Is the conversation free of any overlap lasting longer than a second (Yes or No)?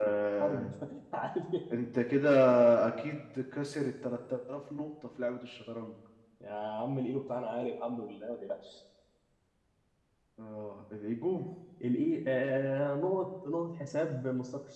Yes